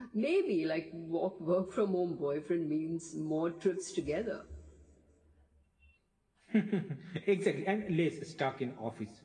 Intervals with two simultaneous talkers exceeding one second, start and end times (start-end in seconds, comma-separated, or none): none